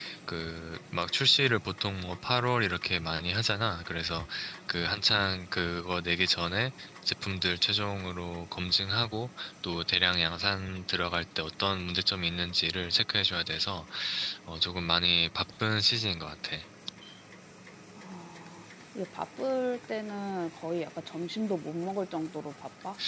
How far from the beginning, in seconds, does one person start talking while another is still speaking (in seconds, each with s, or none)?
none